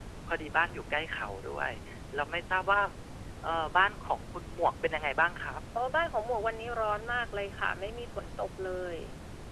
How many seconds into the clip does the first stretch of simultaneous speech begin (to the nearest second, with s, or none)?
none